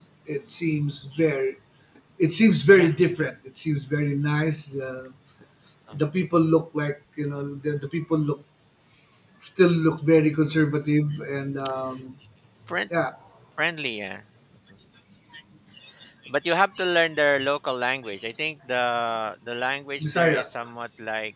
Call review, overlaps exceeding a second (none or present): none